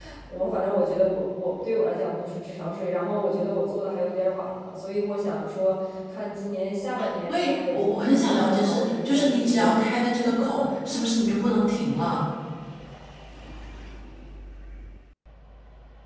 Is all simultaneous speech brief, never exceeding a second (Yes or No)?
No